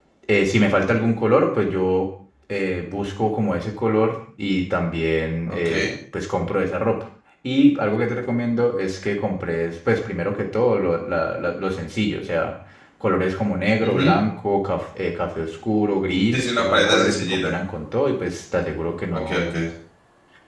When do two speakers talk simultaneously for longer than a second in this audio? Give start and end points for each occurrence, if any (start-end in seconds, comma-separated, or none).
16.3-17.6